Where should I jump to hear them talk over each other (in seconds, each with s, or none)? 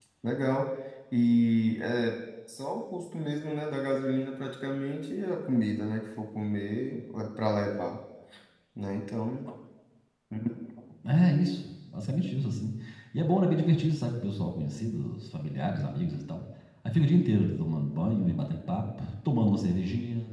none